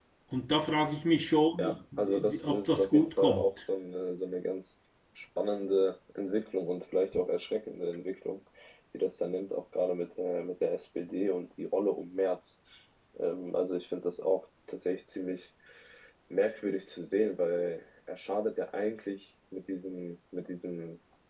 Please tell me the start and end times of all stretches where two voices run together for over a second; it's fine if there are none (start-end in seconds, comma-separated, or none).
1.6-3.5